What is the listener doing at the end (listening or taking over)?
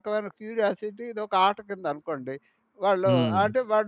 listening